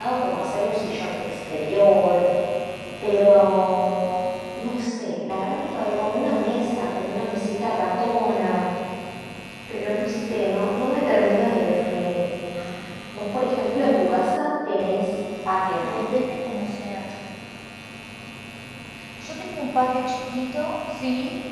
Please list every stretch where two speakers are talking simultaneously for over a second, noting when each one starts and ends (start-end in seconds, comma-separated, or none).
none